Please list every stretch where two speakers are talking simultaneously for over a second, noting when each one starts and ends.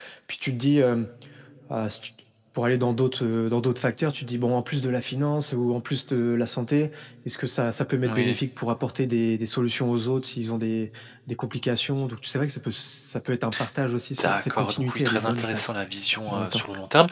14.2-15.7

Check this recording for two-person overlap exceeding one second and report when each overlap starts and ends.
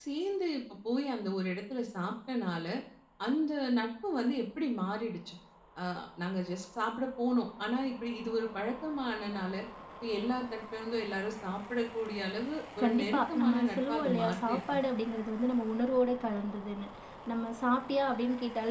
12.8-14.8

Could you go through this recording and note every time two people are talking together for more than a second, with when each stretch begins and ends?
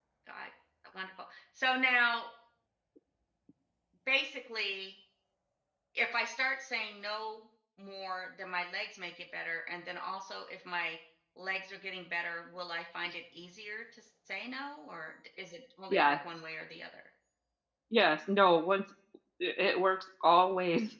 none

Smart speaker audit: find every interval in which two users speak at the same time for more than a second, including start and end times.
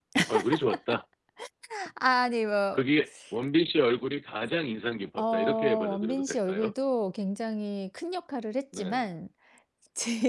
5.2-6.7

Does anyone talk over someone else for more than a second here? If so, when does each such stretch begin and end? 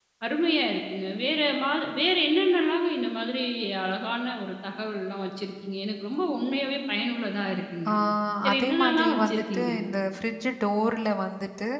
8.5-9.7

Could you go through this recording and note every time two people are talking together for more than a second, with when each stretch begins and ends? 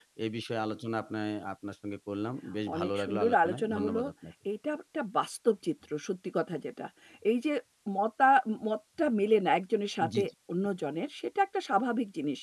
2.7-4.0

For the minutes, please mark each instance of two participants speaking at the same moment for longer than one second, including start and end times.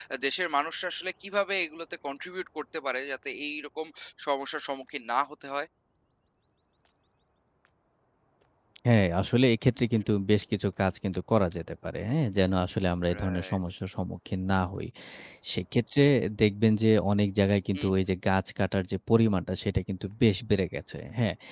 none

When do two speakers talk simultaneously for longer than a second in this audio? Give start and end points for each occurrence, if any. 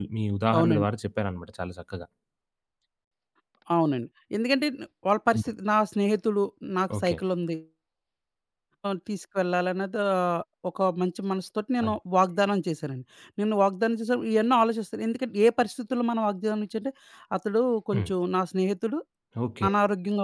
none

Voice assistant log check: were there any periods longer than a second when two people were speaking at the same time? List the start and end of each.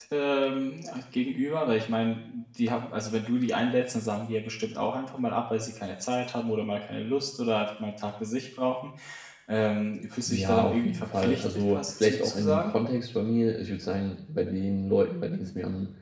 10.2-12.7

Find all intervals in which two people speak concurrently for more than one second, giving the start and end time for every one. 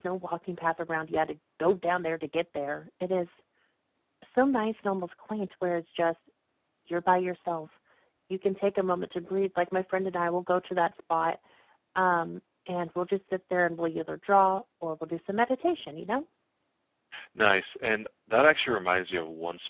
none

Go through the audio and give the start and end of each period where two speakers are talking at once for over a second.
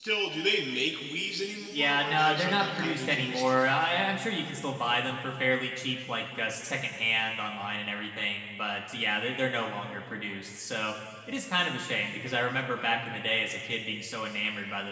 1.7-3.8

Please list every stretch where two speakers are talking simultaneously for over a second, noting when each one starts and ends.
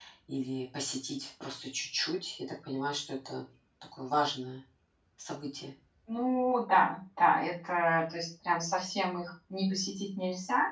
none

